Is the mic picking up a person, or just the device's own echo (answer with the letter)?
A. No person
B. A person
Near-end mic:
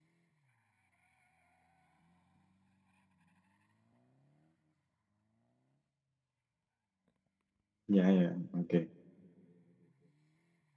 B